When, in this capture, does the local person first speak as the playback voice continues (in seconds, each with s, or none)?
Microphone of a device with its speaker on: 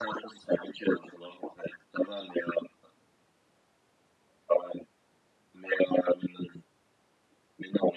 none